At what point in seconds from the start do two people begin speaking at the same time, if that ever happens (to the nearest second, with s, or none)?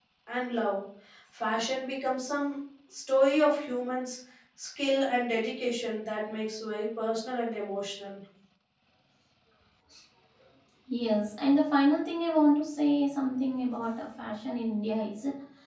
none